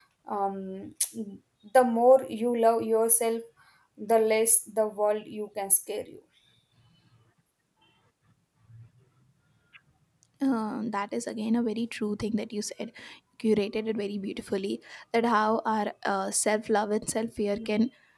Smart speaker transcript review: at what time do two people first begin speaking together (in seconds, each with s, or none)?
none